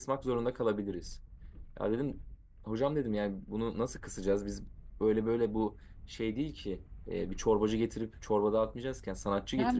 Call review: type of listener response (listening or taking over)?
taking over